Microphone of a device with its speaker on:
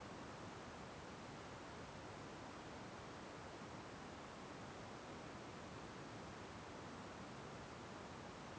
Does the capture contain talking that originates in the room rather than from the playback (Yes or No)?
No